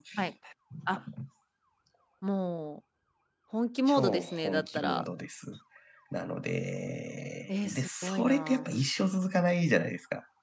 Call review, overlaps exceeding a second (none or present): present